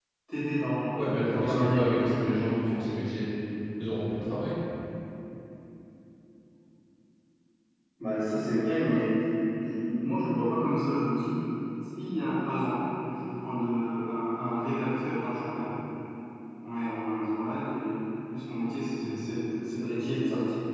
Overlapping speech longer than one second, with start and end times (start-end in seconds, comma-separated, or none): 0.9-2.3